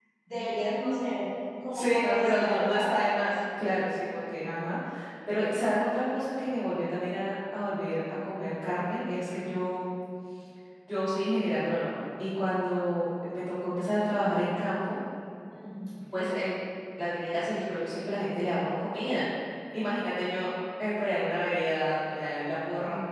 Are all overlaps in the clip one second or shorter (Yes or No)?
No